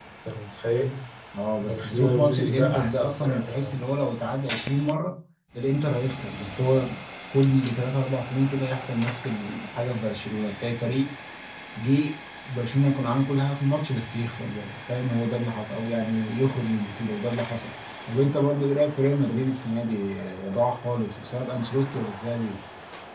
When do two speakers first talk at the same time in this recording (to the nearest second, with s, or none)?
2 s